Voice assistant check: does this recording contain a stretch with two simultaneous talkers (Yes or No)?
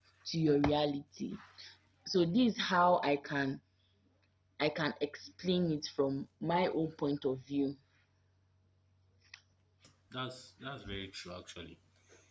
No